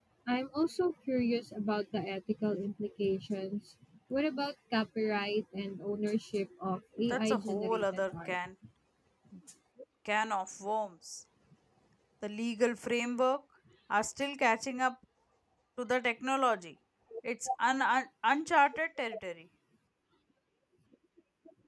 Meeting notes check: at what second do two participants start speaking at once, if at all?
7.1 s

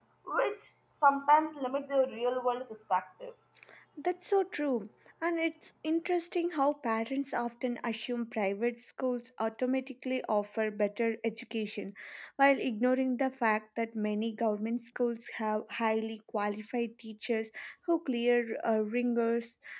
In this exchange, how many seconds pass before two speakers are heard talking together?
none

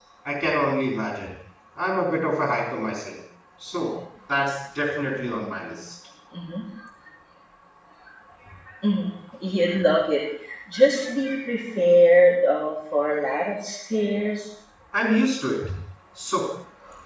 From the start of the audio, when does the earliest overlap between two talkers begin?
none

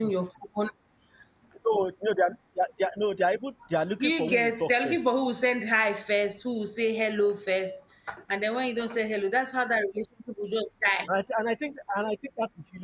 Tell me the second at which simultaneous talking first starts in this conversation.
3.9 s

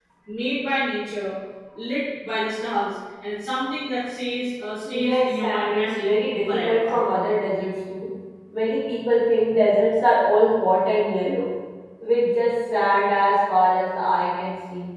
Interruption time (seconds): 4.8 s

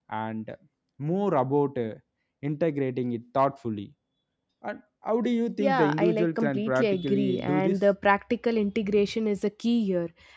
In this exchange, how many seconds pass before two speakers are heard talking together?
5.6 s

